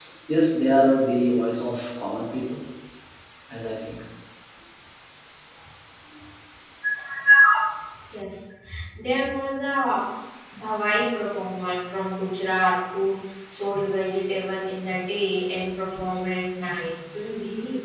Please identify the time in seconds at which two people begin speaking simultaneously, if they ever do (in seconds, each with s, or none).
none